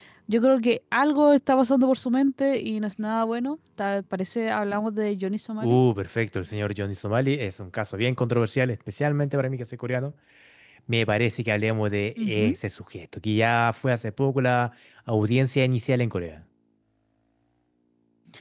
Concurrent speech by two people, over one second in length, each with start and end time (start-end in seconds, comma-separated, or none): none